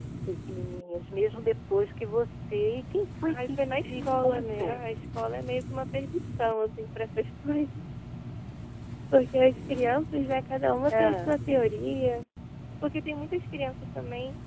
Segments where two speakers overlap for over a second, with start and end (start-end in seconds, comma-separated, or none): 3.4-4.8